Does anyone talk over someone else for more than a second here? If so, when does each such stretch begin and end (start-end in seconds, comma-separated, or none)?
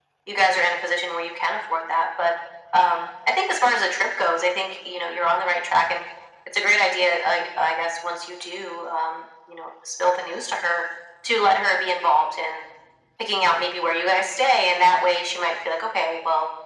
none